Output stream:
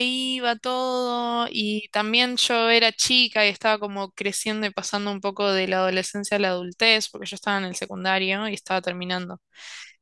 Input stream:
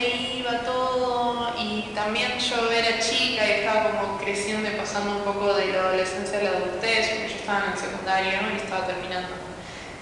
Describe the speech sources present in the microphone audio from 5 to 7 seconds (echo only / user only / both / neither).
echo only